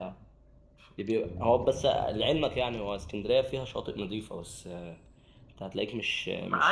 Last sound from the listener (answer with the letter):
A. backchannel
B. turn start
B